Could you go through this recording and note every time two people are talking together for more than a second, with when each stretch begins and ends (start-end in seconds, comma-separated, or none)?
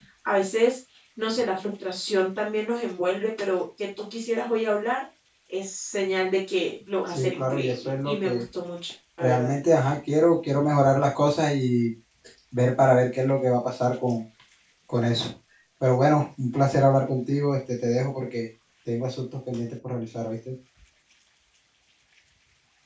7.1-8.4